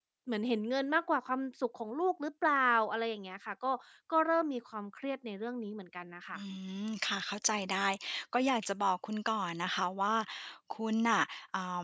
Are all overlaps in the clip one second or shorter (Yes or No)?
Yes